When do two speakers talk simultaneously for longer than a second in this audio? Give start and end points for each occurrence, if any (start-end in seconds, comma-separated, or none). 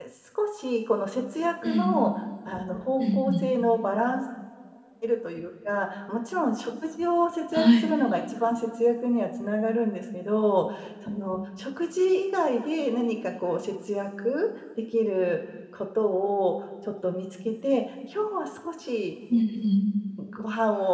none